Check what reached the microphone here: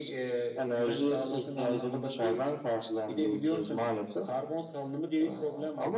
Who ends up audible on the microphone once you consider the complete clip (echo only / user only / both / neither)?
echo only